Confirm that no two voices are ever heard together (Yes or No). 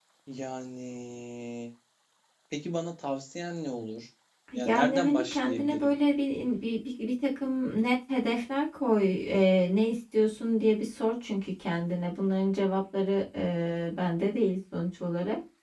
No